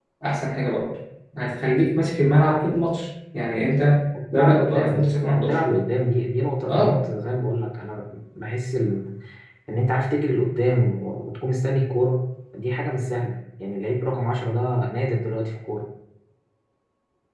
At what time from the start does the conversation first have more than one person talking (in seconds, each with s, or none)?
4.3 s